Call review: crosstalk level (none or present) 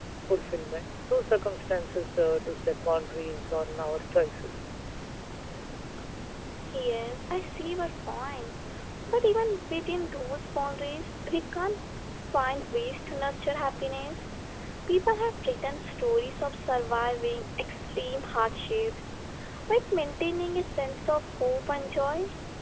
none